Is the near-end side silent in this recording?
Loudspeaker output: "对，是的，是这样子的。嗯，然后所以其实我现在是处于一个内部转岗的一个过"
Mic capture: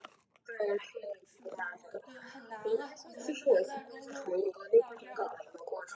No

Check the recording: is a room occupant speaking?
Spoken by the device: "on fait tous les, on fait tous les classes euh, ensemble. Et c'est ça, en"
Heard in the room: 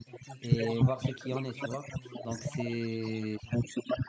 Yes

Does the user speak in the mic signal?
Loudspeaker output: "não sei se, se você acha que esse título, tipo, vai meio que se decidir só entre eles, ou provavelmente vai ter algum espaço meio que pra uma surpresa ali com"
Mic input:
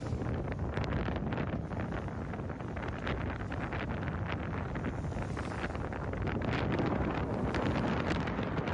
No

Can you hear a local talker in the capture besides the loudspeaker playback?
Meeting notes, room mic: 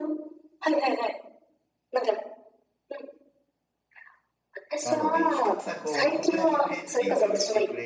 Yes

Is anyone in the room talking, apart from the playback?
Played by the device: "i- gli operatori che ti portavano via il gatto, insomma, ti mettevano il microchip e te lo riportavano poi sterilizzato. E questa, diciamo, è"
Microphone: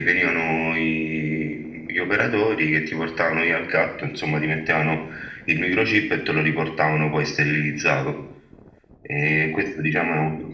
No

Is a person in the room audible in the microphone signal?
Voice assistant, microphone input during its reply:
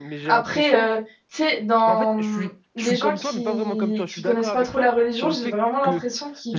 Yes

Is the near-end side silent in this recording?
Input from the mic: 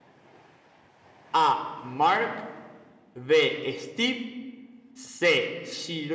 No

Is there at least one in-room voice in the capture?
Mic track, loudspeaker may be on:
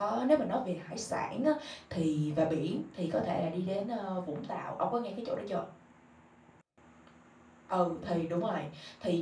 Yes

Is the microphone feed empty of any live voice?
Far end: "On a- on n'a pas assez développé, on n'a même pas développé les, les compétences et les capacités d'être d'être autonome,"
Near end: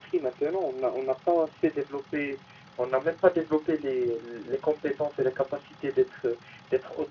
Yes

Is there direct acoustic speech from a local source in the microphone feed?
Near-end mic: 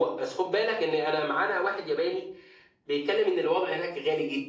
No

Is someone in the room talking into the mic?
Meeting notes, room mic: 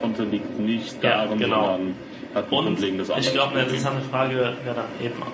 Yes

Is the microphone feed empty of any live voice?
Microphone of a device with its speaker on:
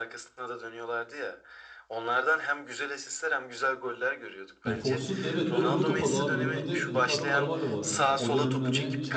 No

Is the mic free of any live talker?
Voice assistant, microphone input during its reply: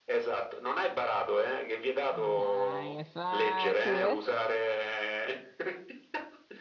No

